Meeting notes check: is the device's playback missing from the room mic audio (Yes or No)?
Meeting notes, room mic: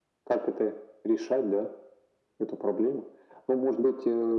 No